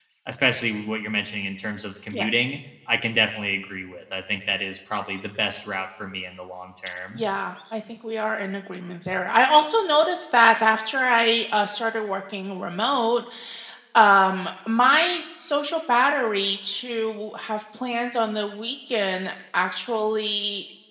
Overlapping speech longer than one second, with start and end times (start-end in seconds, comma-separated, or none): none